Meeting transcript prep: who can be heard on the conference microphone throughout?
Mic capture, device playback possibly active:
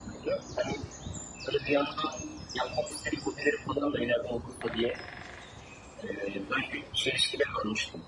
echo only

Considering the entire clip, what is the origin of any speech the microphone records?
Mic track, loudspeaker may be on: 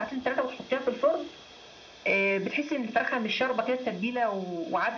echo only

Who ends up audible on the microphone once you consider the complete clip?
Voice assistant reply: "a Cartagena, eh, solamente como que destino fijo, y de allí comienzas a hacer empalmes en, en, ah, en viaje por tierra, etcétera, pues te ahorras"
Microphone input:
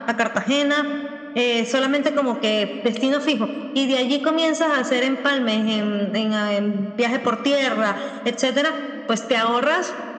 echo only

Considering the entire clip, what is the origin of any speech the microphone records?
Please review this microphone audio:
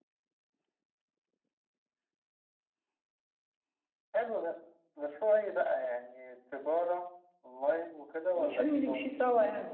both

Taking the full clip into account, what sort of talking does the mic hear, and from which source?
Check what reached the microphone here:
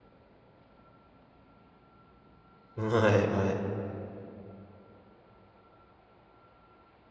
user only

